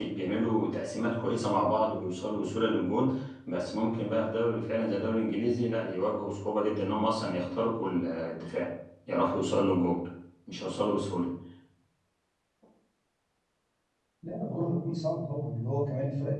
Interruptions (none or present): none